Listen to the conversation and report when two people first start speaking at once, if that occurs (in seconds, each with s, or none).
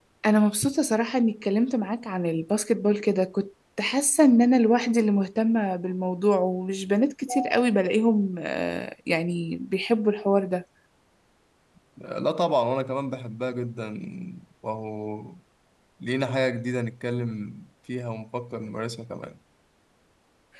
none